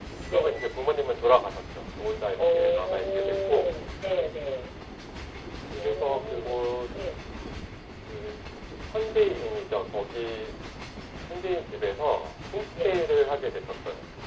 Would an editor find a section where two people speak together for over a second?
Yes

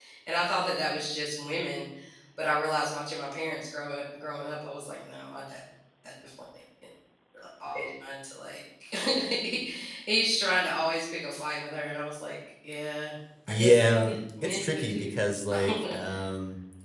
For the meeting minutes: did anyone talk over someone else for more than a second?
Yes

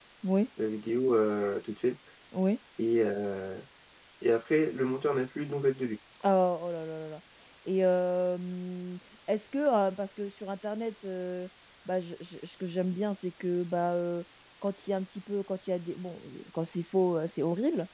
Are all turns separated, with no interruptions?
Yes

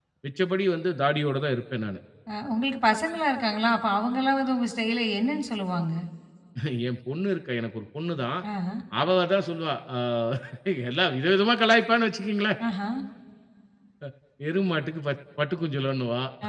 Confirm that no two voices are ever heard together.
Yes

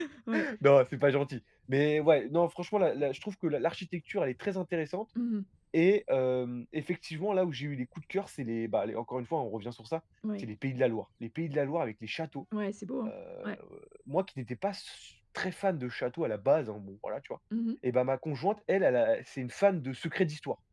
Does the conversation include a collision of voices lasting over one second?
No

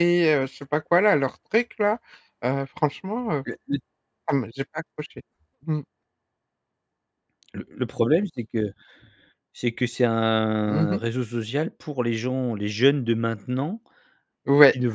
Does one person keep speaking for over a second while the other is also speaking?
No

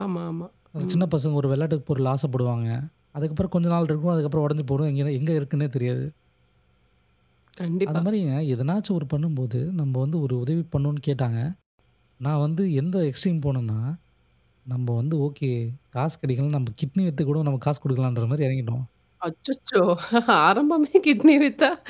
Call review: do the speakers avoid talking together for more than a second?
Yes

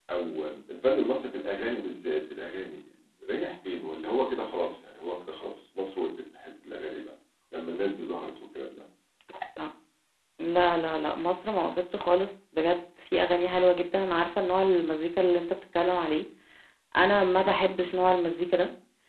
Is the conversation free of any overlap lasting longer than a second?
Yes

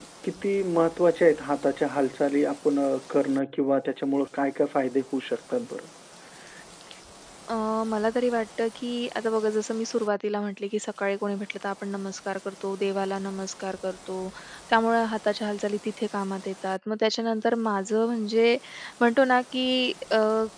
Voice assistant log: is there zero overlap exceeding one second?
Yes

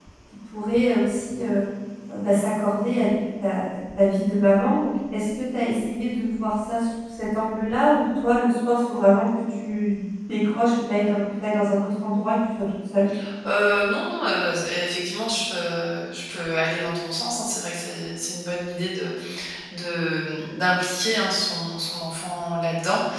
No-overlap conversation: Yes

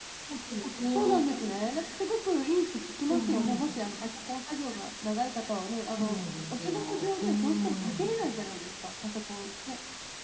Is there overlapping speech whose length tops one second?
Yes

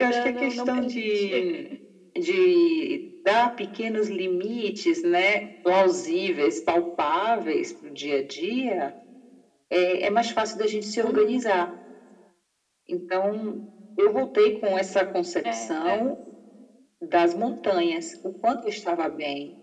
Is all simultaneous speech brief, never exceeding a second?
No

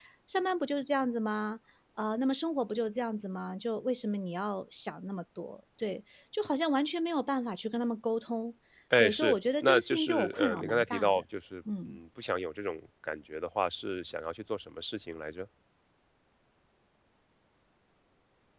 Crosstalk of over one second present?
Yes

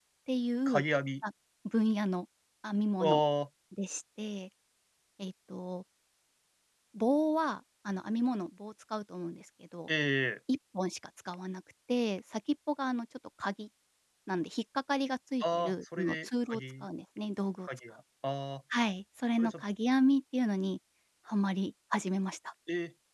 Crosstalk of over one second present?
Yes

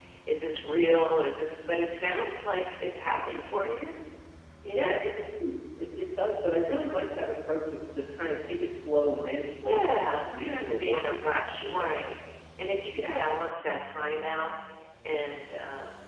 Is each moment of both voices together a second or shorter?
No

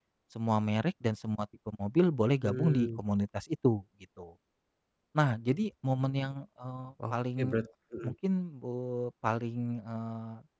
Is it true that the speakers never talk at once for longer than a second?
Yes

